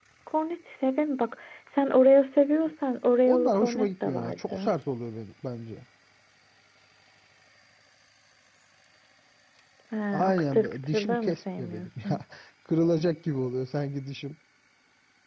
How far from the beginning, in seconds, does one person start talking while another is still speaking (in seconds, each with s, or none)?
3.3 s